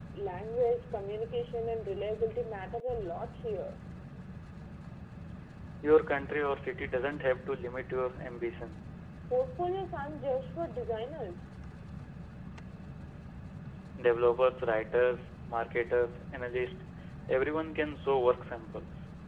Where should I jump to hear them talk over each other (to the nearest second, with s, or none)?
none